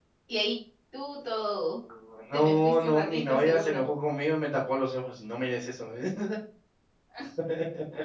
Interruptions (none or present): present